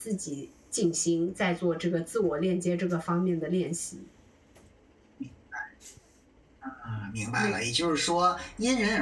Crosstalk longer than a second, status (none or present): none